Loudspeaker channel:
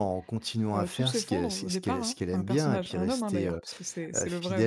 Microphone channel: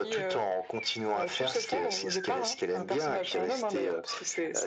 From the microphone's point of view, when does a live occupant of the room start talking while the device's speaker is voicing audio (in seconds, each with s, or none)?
none